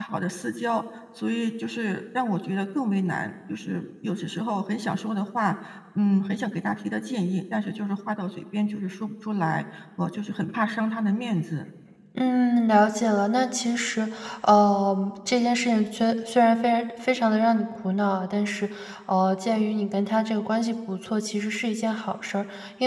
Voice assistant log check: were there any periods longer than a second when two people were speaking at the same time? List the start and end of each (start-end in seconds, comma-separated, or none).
none